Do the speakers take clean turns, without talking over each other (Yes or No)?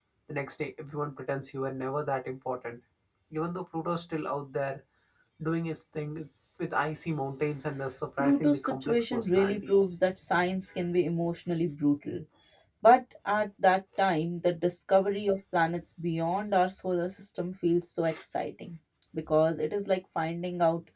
No